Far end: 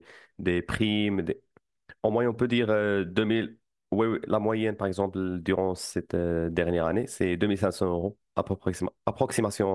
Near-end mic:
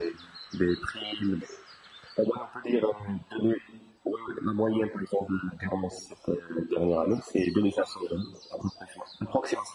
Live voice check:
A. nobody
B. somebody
A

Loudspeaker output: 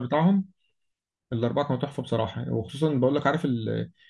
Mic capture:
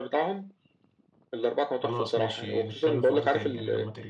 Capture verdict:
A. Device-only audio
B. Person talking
B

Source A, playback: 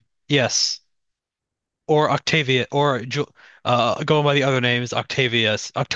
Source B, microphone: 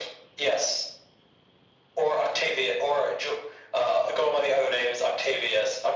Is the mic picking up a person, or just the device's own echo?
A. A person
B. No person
B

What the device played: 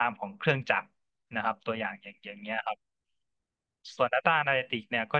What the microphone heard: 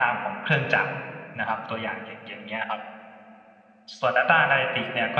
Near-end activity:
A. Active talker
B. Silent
B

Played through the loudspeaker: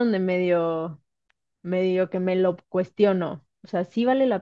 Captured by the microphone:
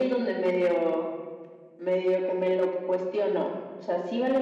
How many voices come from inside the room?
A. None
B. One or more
A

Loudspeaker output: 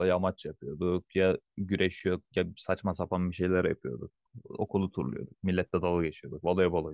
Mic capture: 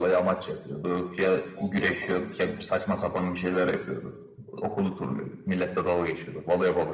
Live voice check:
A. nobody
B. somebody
B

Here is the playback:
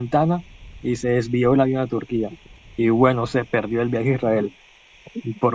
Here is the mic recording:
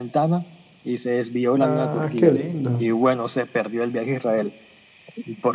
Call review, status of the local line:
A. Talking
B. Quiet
A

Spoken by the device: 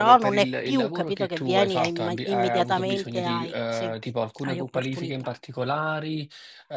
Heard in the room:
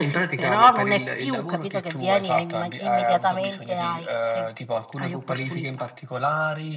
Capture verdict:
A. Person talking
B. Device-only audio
B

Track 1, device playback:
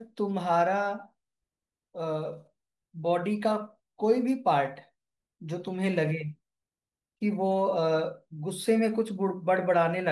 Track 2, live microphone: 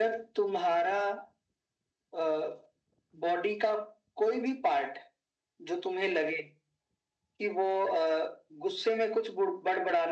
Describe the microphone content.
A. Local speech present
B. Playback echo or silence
B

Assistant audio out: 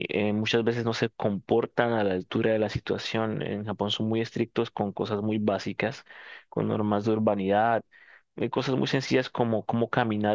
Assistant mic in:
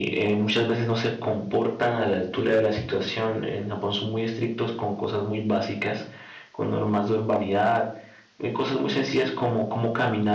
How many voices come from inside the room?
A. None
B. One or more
A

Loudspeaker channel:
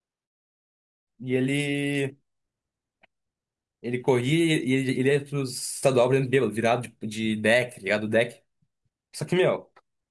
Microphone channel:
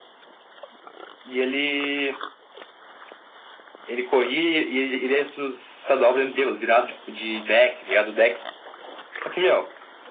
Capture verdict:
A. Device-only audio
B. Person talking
A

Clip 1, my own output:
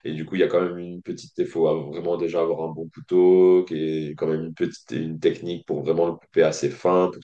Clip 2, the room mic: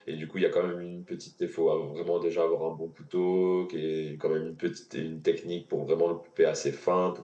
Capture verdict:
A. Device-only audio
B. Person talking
A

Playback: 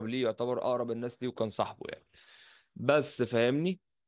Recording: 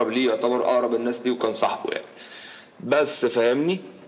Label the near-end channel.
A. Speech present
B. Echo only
B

